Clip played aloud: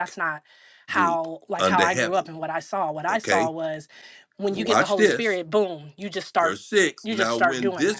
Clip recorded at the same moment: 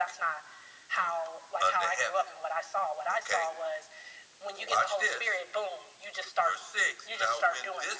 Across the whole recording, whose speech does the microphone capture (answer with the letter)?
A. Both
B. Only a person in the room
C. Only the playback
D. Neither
C